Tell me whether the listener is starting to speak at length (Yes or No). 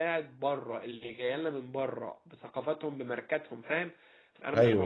No